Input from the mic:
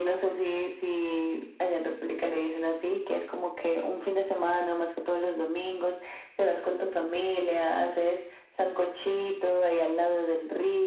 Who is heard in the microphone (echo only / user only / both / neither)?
echo only